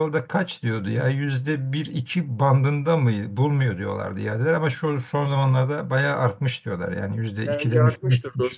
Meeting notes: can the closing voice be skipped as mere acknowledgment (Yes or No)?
No